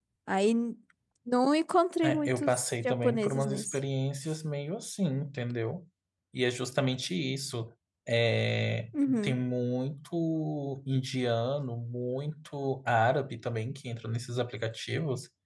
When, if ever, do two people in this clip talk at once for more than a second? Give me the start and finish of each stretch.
2.0-3.8

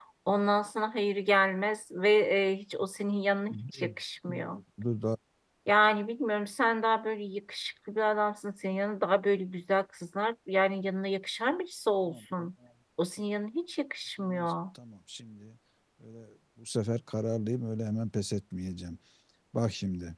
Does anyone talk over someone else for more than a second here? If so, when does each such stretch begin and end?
none

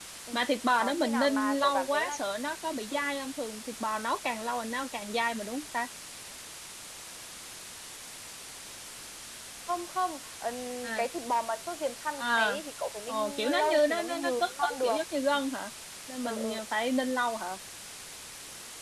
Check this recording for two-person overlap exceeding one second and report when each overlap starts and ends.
0.8-2.2, 13.1-15.0

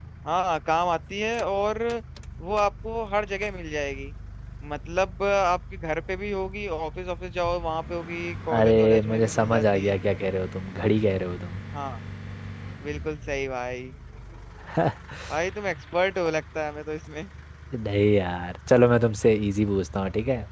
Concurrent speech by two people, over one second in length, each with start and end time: 8.6-9.9

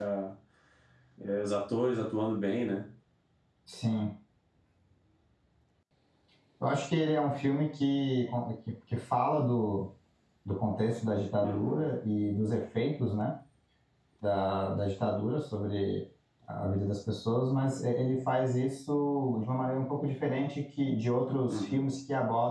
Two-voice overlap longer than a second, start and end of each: none

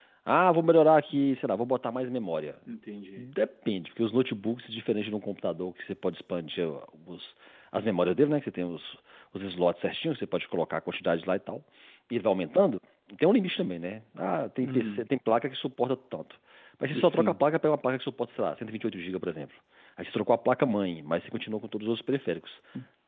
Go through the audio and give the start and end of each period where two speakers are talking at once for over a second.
none

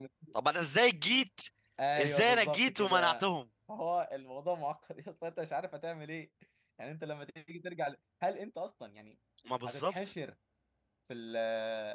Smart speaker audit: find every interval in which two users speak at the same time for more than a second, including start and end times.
2.0-3.2

